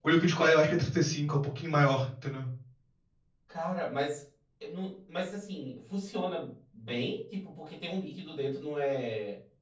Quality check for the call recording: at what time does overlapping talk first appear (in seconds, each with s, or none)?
none